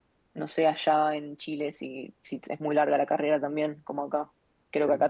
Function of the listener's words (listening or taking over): listening